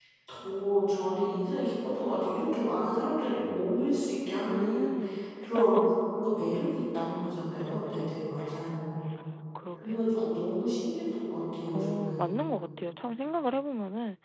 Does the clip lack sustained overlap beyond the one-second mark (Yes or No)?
No